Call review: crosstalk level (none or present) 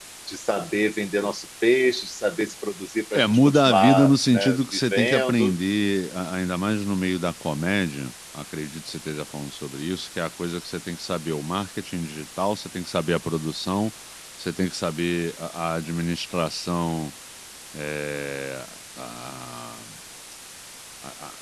present